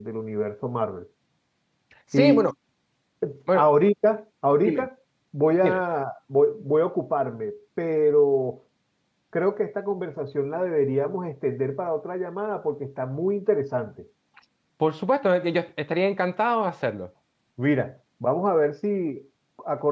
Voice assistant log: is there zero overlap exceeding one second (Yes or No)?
Yes